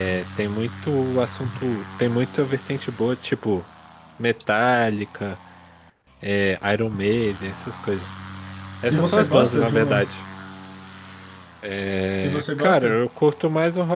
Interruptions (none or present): present